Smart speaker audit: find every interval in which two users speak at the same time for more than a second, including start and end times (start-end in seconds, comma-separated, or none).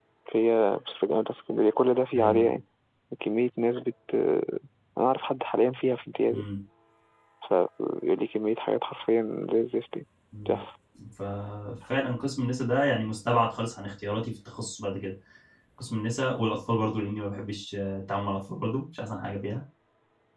none